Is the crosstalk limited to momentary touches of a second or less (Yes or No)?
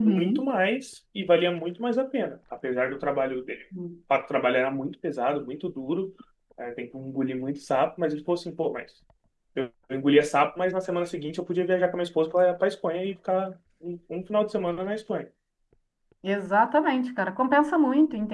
Yes